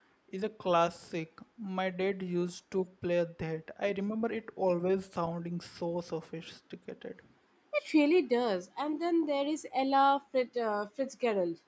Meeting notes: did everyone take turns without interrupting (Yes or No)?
Yes